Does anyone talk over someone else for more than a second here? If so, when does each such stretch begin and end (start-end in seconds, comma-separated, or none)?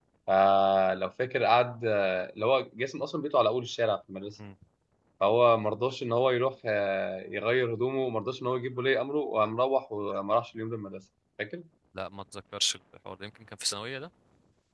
none